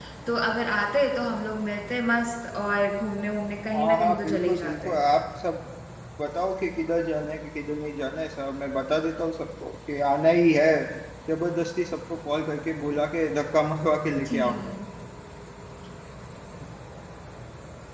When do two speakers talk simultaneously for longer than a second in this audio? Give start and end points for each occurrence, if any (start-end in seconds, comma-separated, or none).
3.7-5.0